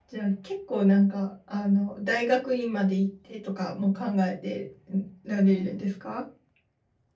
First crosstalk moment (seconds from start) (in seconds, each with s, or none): none